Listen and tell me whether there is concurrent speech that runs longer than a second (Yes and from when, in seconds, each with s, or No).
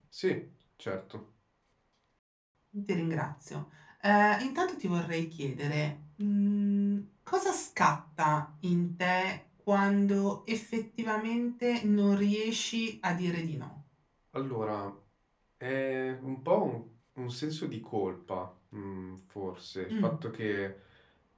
No